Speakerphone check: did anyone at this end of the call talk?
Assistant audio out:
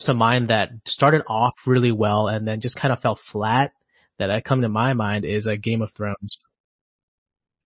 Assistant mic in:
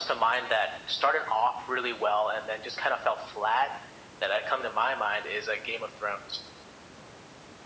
No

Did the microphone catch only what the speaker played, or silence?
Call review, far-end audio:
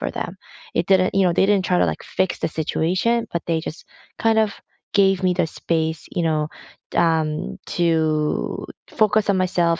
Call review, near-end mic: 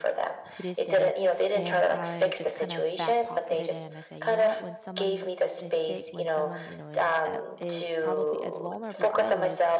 No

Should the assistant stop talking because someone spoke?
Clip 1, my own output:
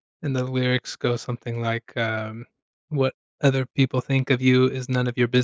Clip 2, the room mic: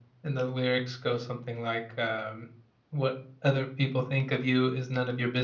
No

